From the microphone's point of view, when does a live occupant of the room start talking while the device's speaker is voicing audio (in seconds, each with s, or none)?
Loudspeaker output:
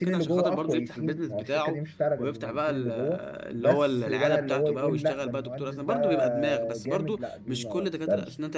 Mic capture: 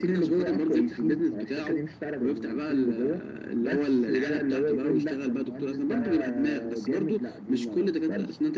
none